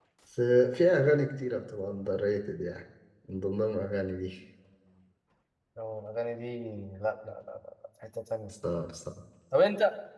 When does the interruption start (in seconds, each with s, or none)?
none